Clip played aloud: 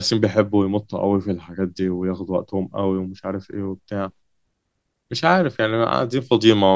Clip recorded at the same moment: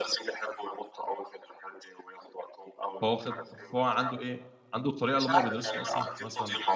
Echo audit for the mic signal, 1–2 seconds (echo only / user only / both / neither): echo only